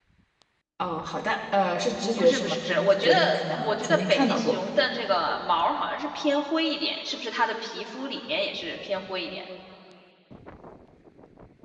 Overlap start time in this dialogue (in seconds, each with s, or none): 2.2 s